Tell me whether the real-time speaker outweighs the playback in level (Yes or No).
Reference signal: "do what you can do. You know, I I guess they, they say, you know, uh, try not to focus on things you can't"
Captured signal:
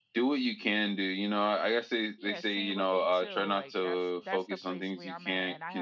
No